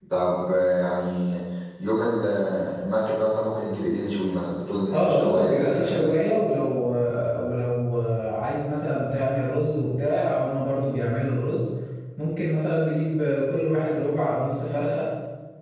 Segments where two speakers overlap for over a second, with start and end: 4.9-6.2

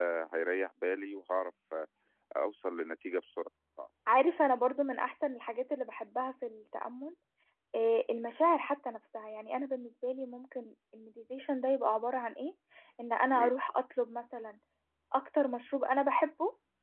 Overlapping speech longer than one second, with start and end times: none

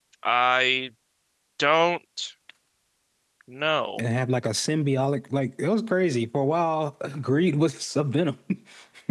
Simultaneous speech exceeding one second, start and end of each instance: none

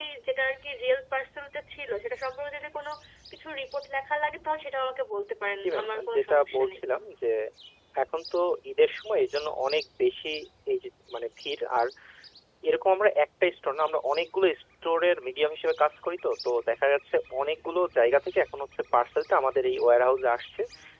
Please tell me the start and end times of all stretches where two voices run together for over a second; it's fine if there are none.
5.6-6.8

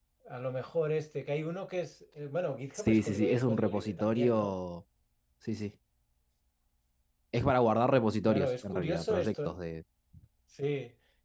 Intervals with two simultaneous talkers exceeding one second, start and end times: 2.8-4.5, 8.2-9.5

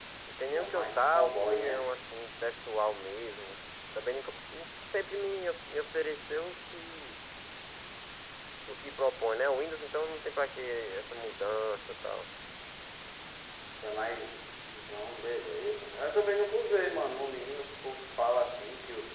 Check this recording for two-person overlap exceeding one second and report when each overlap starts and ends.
0.5-1.9

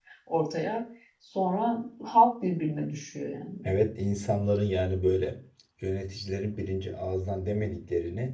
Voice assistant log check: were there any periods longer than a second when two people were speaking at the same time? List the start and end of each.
none

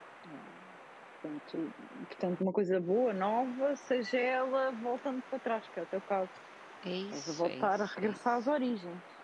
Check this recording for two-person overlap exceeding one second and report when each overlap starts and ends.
7.1-8.4

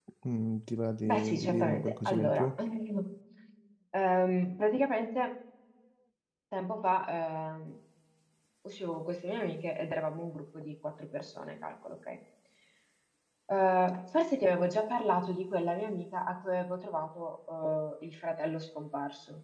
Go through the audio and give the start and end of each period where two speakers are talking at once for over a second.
1.0-2.5

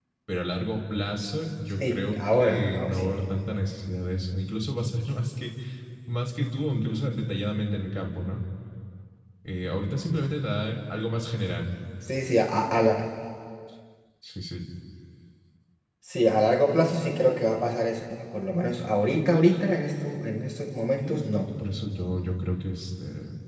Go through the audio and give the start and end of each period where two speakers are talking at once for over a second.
1.8-3.1

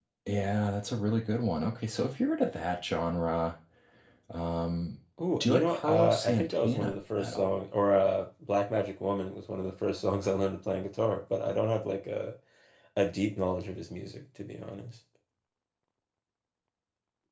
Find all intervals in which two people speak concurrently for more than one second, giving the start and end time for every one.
5.4-7.6

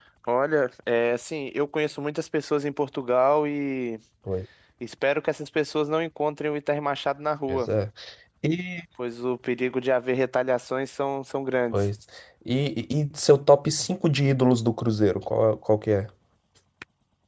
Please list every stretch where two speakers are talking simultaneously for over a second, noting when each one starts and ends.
none

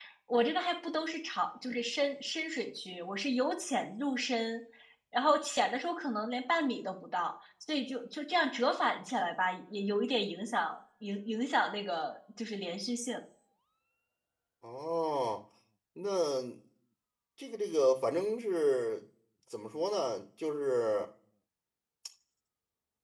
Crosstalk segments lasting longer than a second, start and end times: none

